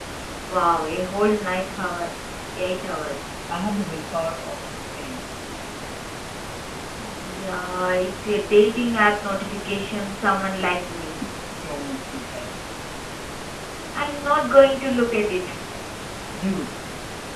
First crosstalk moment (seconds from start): none

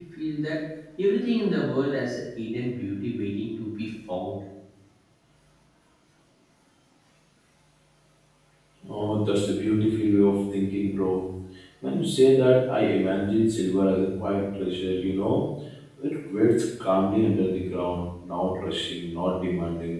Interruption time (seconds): none

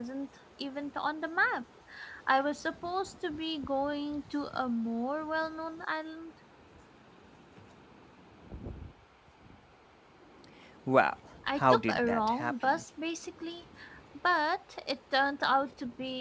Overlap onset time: 12 s

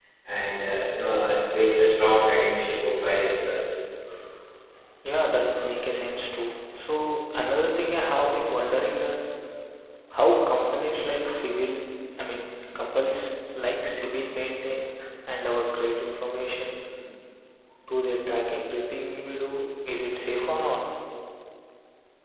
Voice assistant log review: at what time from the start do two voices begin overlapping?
none

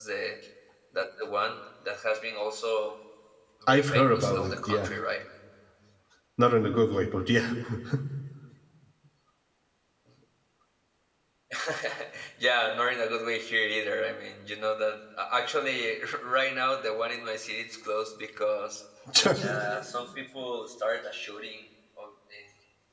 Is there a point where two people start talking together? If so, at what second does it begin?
4 s

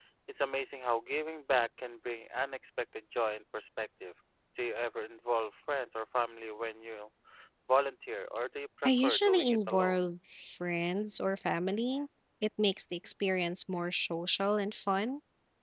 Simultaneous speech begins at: 9 s

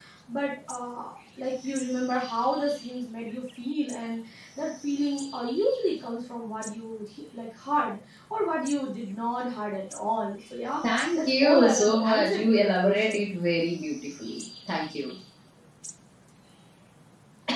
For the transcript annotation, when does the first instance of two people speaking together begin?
11 s

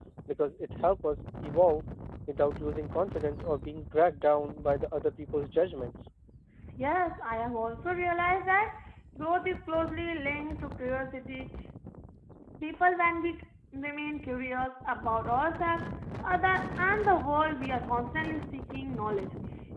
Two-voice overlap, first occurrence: none

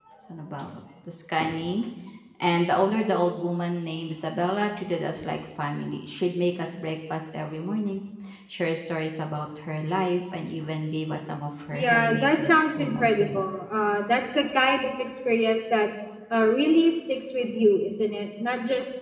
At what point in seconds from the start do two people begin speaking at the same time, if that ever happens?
12 s

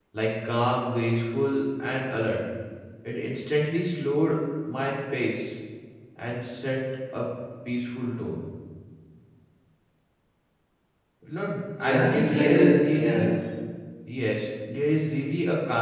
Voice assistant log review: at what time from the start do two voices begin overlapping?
12 s

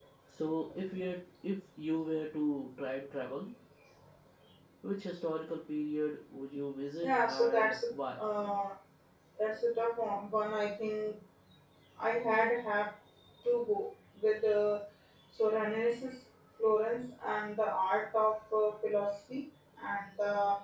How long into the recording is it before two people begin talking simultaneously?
7 s

